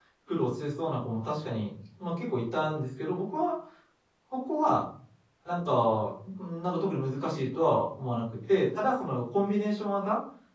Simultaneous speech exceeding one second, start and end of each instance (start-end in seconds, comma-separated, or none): none